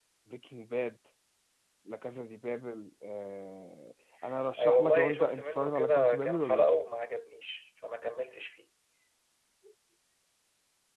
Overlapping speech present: Yes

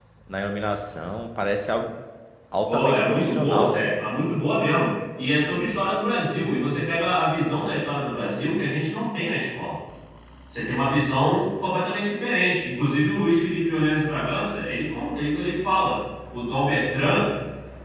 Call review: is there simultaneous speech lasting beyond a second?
Yes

